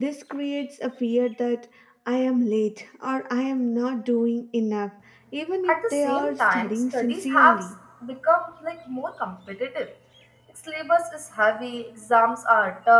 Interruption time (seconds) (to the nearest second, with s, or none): 6 s